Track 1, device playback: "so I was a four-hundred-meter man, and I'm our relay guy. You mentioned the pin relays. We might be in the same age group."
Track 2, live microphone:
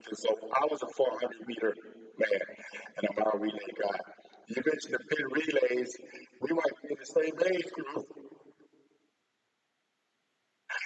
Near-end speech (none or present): none